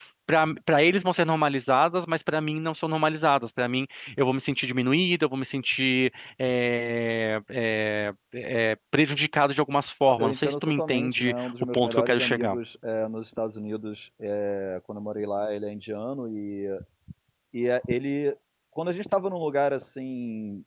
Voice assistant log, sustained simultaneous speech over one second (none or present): present